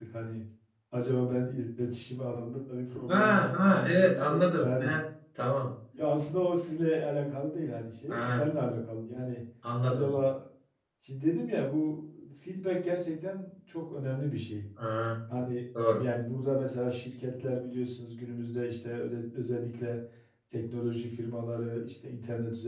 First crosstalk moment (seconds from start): 3.1 s

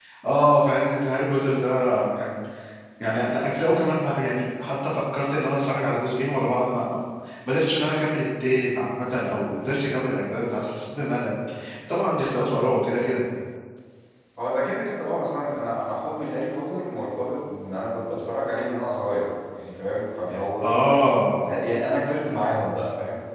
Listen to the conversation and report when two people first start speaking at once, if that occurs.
none

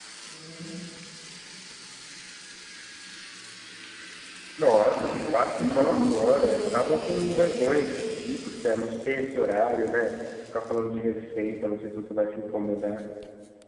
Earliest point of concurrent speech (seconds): 4.7 s

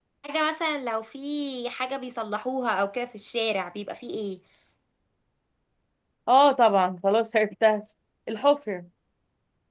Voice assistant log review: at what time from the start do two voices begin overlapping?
none

